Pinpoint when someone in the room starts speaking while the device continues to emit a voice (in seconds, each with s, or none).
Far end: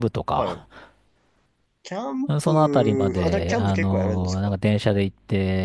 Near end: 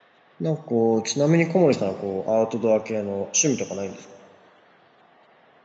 0.4 s